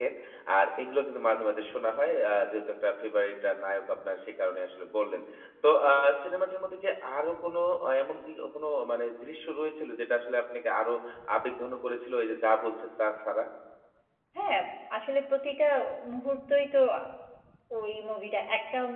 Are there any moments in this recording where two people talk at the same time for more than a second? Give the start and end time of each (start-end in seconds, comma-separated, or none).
none